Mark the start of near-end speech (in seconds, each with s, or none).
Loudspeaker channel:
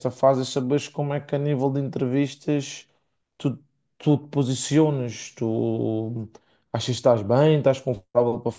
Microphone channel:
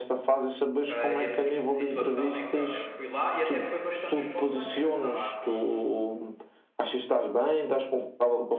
0.8 s